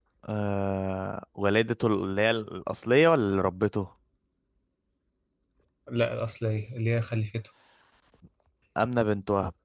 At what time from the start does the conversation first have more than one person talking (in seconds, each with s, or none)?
none